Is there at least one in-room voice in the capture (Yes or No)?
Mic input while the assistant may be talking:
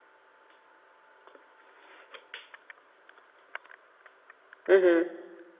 Yes